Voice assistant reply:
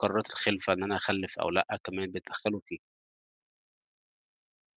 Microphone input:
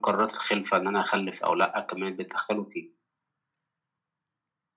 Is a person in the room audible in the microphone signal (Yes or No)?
No